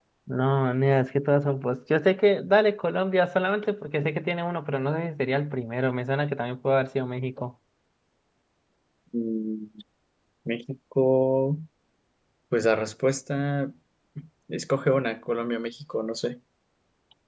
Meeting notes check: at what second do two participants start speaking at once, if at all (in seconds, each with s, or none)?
none